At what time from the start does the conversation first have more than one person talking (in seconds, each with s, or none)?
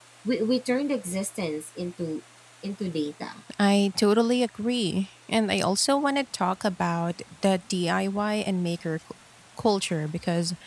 none